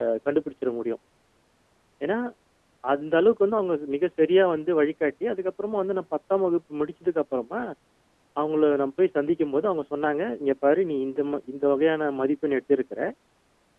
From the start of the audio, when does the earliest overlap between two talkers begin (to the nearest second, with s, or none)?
none